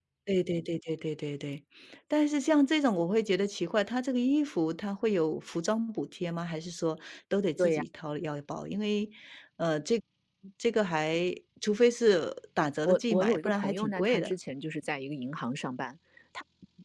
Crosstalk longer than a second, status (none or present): present